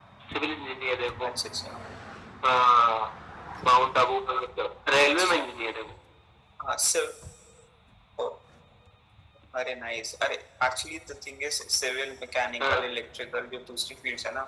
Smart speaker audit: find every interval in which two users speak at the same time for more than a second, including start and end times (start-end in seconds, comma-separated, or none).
none